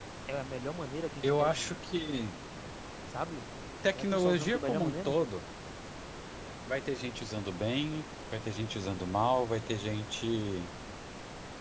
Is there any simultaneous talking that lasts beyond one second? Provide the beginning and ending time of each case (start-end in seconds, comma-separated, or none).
3.9-5.2